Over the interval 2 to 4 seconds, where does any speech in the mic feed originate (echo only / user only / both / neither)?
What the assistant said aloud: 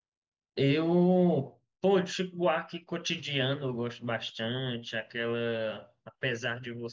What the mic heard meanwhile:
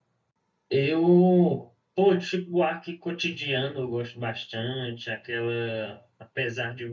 echo only